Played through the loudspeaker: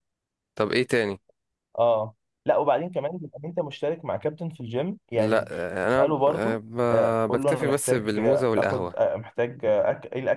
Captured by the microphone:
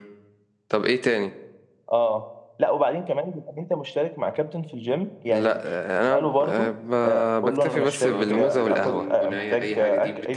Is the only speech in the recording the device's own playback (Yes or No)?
No